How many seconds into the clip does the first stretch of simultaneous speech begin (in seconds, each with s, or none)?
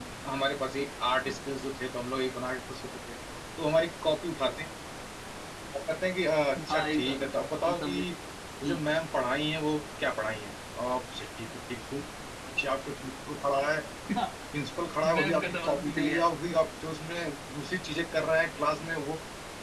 6.7 s